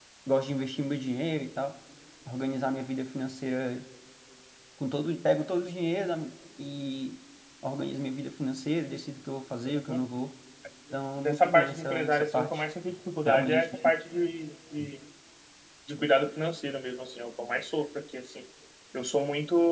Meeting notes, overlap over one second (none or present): present